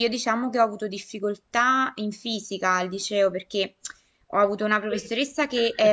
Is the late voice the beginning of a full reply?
No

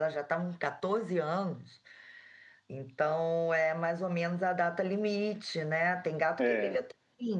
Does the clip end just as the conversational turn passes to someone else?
No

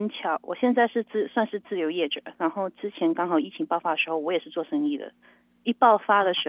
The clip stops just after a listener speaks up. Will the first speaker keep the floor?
Yes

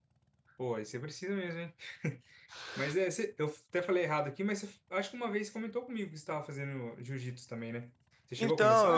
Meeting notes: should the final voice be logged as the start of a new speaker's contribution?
Yes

